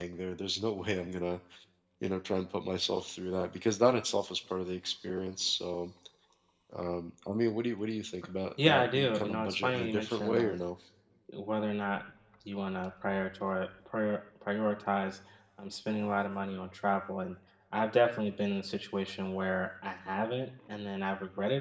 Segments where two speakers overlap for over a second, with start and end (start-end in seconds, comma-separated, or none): 8.6-10.6